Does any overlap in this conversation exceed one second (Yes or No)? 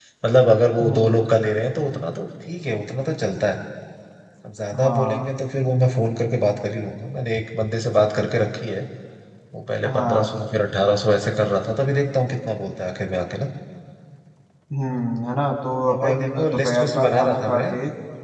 Yes